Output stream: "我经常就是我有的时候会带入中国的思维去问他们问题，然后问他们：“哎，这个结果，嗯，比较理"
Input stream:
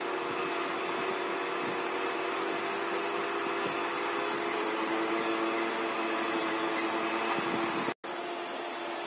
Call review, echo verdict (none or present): none